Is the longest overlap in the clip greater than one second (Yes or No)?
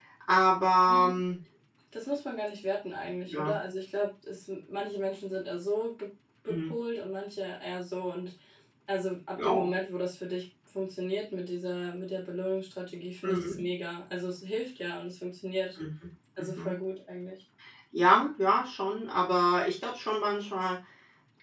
No